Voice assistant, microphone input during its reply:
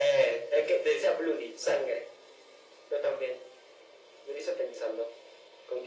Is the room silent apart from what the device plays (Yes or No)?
Yes